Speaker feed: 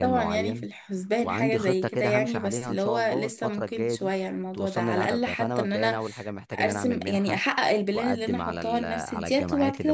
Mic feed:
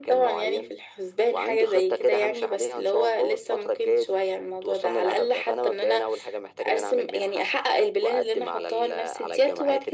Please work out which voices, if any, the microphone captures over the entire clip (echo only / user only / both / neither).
echo only